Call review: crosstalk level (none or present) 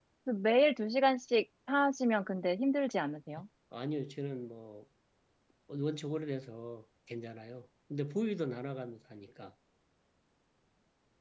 none